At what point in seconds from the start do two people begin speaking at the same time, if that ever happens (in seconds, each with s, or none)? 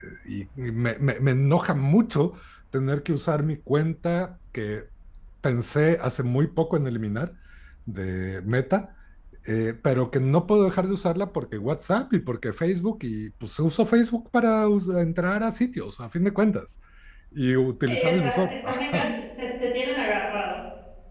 17.9 s